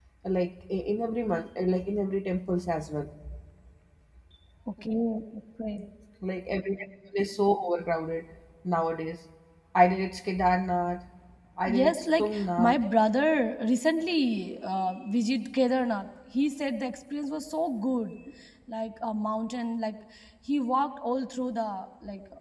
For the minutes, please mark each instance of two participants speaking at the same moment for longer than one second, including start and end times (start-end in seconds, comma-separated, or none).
11.7-12.9